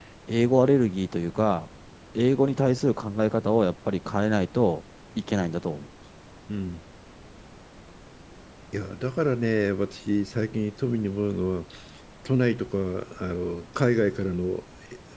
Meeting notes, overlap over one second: none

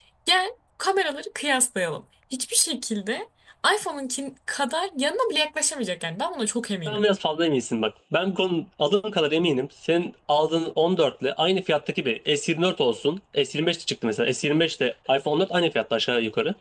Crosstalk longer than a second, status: none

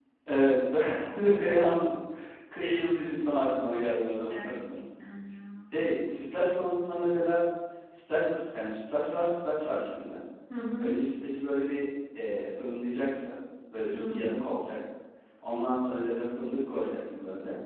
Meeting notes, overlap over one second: none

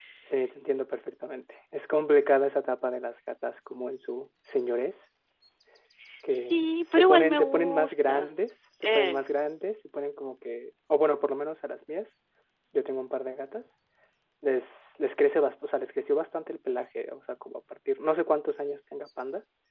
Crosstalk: present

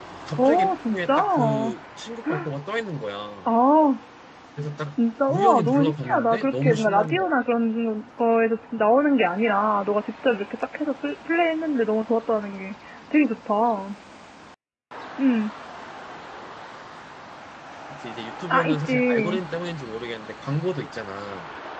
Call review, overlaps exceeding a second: present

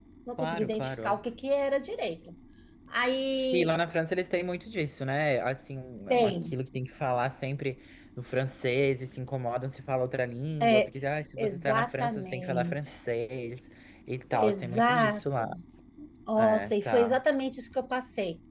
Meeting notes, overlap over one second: present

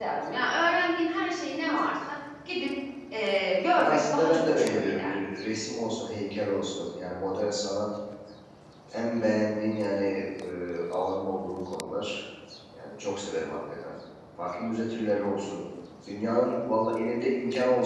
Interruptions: present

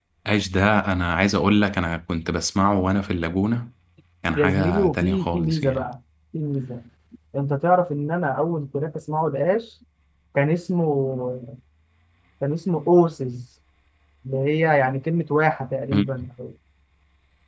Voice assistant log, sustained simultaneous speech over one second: present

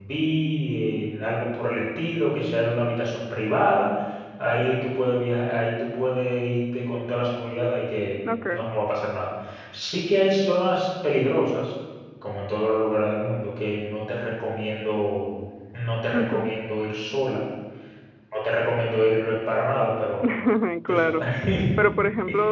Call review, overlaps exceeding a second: none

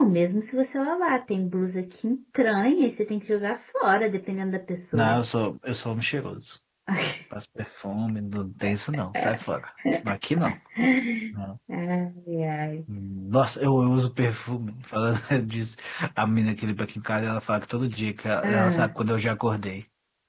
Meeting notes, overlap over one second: none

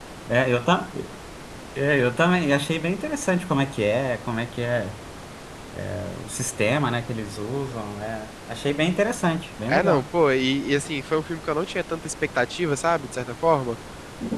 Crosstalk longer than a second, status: none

